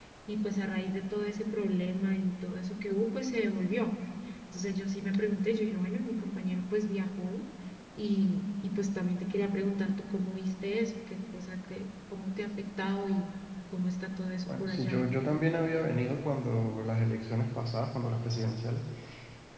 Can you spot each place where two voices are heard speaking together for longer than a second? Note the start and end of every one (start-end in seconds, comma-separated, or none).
none